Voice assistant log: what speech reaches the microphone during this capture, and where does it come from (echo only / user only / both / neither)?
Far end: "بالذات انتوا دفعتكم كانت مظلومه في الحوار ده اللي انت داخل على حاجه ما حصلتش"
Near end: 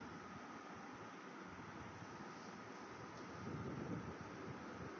neither